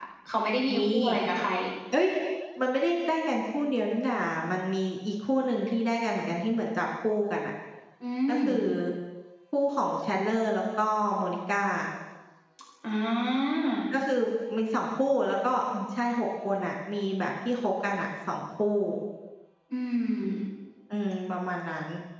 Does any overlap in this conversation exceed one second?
No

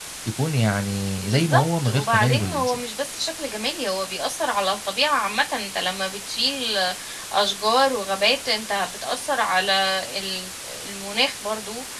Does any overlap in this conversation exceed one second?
Yes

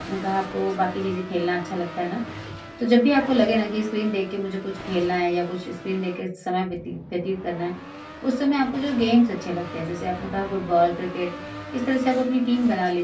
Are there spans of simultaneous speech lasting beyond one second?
No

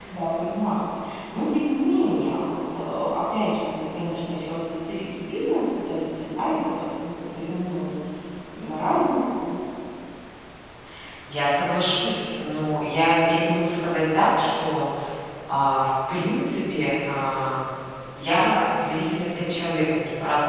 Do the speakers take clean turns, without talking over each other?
Yes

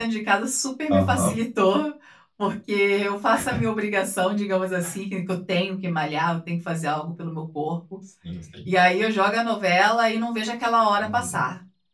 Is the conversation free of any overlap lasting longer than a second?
Yes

